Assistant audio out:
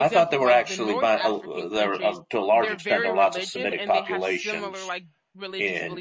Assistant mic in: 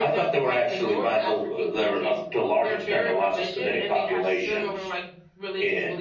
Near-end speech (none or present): none